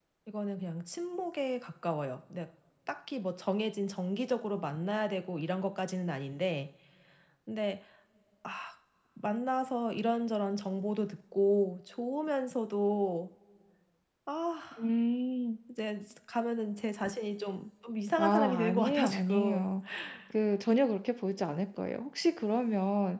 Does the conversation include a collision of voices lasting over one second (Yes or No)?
Yes